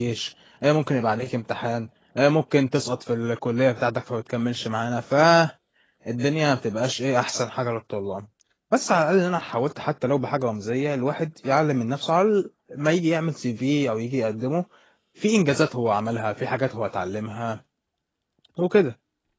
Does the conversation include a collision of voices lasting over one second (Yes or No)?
No